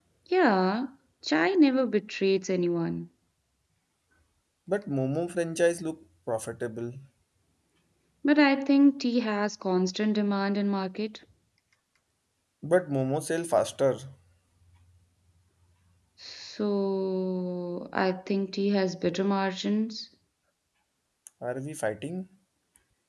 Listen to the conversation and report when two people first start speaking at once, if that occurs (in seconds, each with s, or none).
none